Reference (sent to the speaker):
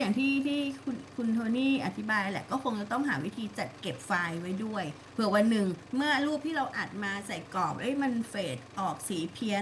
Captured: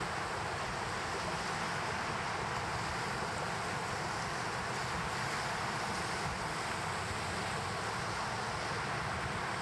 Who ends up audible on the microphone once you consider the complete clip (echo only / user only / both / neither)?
neither